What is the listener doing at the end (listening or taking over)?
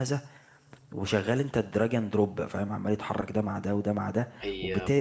listening